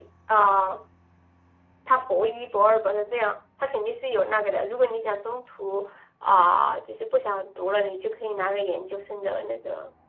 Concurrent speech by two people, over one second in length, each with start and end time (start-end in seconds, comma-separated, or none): none